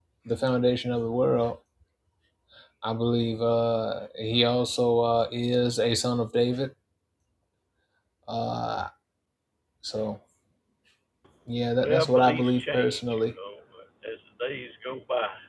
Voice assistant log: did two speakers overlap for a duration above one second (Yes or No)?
Yes